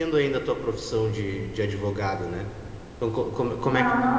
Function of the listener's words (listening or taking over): listening